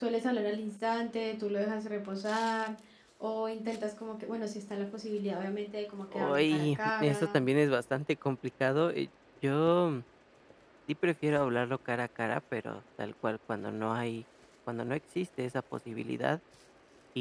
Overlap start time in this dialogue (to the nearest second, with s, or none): 6 s